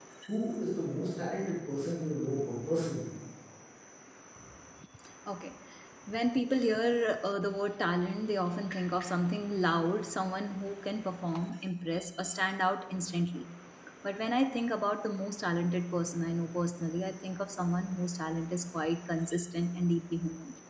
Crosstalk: none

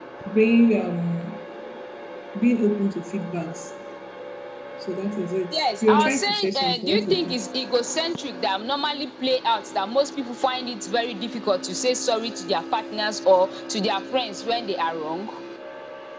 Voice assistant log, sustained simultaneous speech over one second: present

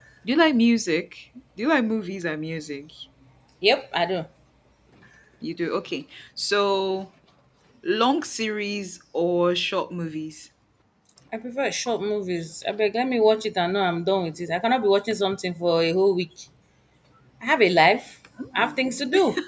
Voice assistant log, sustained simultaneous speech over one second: none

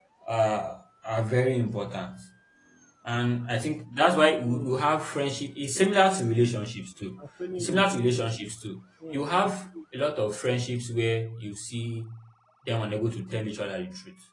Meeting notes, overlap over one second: none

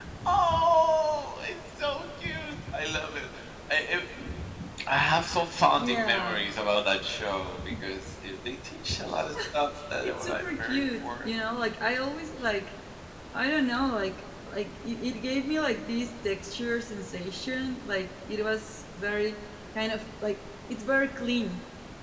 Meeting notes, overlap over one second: present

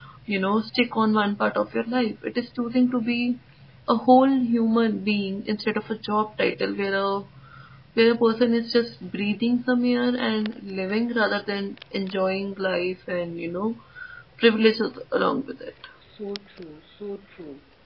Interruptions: none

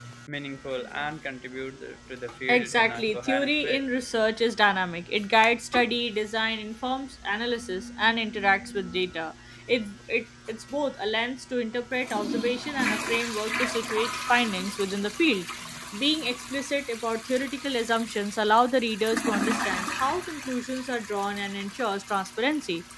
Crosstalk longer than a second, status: present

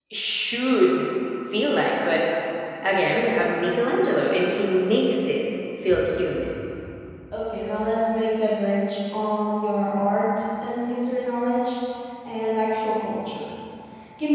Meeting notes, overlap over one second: none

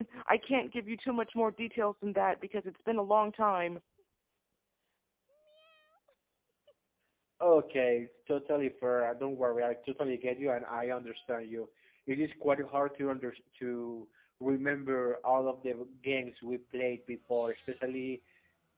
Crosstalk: none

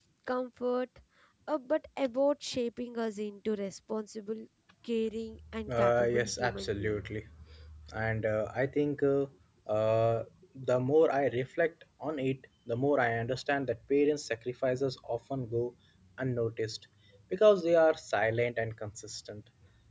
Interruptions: present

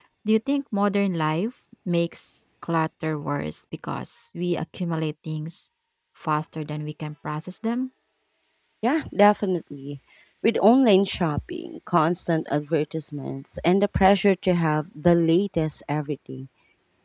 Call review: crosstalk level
none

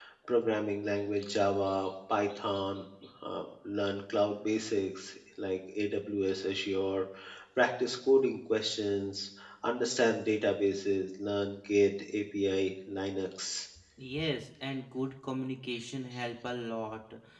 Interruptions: none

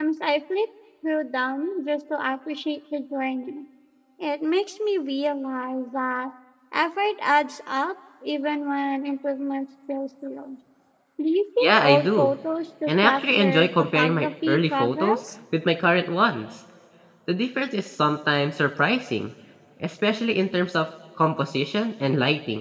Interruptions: present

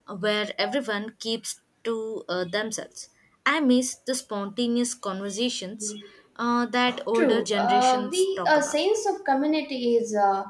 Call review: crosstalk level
present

